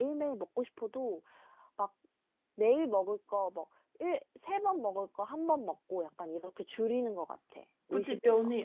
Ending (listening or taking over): taking over